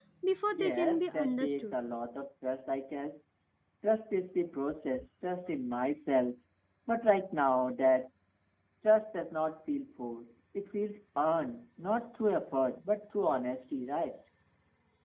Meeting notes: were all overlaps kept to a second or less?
No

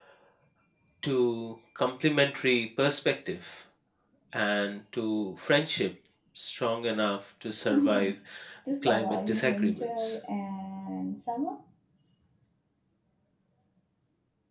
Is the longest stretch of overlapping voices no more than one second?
No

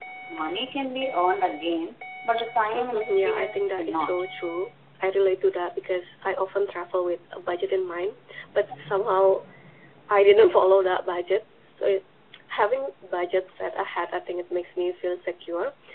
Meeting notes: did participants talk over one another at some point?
Yes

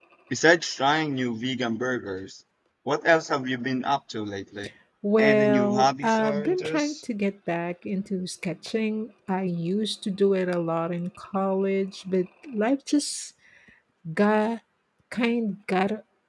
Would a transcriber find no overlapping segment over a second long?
No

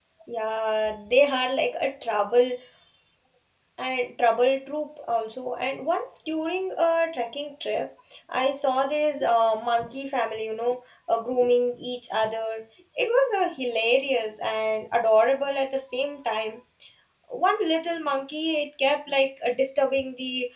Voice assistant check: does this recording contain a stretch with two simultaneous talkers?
No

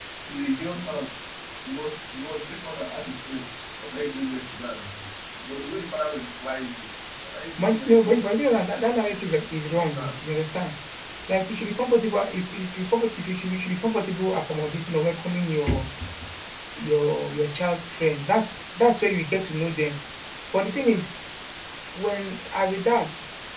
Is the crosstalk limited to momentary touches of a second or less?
No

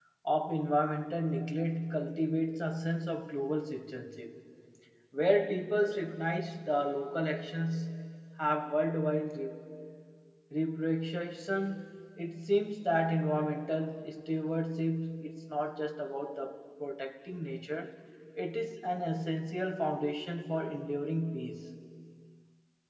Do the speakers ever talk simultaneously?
No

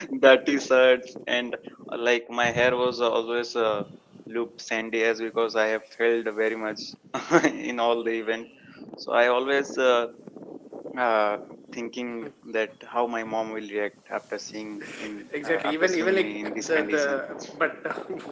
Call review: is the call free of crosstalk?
No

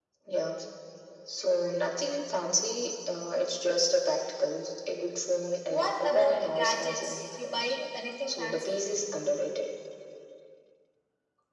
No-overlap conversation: No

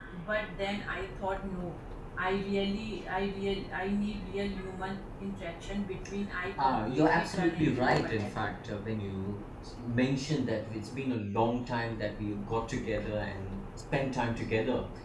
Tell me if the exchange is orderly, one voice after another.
No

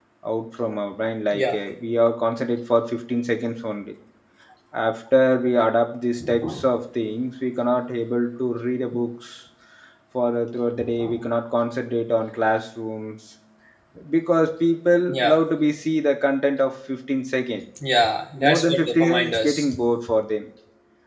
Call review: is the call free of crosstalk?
No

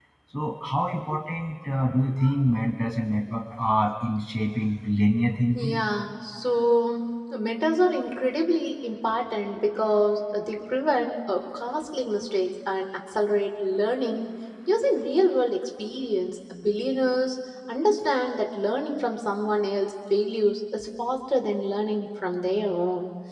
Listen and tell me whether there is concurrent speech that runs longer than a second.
No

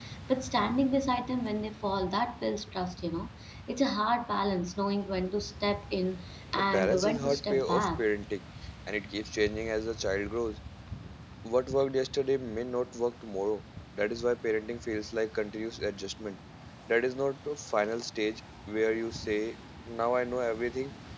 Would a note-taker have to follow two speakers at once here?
Yes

